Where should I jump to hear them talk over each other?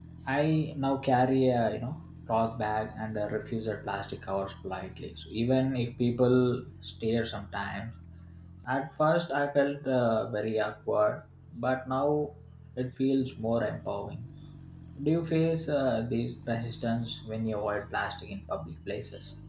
none

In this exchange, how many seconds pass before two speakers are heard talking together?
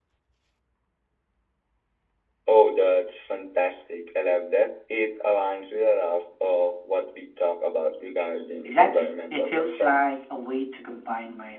8.7 s

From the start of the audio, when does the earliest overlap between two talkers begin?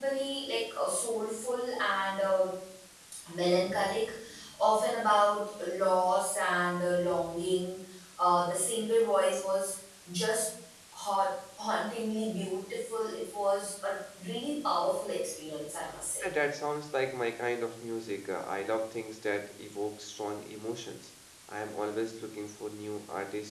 none

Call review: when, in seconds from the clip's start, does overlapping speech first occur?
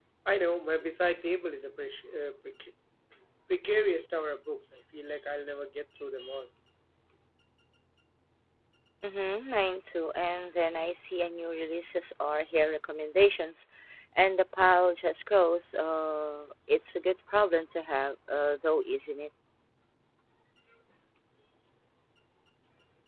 none

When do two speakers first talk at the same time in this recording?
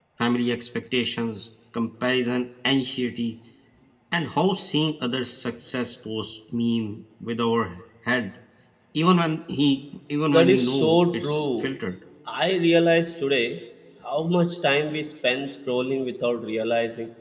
10.3 s

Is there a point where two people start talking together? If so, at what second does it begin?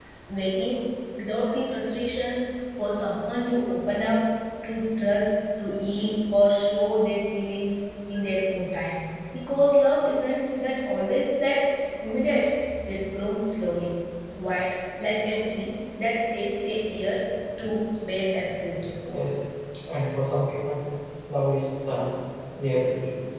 none

